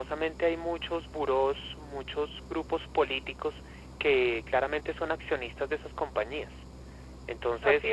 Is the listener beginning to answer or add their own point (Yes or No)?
No